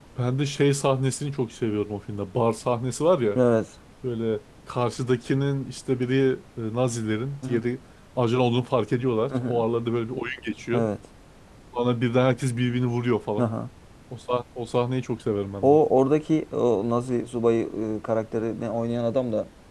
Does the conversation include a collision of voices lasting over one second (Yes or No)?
No